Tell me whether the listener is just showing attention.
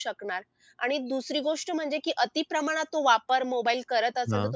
Yes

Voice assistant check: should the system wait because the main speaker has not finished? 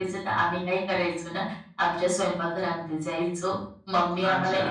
Yes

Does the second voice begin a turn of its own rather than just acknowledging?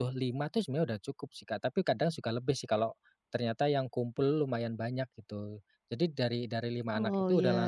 No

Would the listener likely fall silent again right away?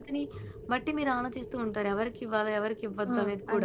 No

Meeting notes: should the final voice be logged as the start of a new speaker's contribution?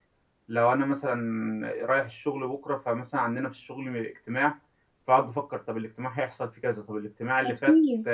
No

